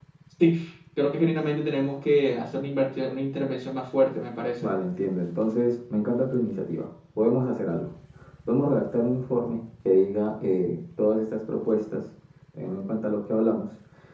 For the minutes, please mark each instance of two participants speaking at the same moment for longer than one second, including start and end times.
none

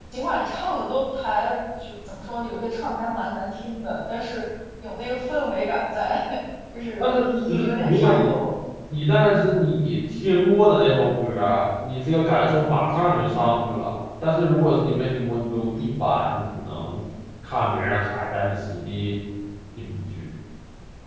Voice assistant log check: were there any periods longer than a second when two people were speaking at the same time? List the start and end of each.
7.0-8.3

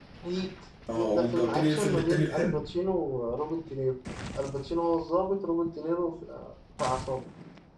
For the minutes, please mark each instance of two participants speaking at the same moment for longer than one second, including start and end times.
0.9-2.6

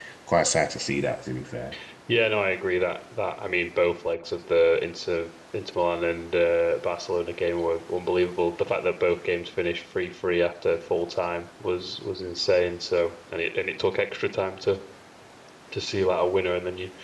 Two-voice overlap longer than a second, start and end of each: none

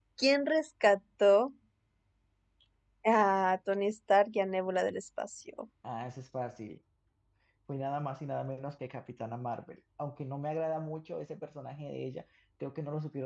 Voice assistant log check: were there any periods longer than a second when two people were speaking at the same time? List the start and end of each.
none

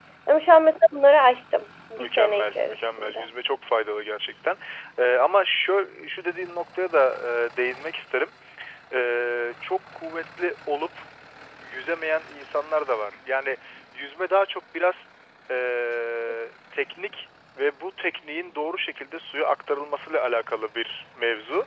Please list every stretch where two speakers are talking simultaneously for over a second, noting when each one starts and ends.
2.0-3.3

